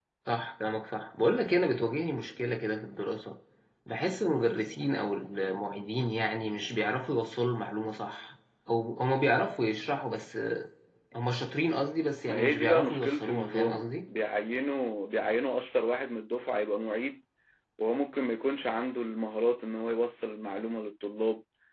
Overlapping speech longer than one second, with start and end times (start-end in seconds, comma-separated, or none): 12.3-13.9